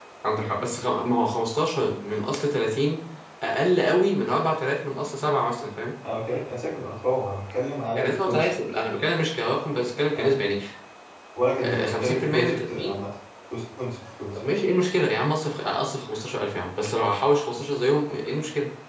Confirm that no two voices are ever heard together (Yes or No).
No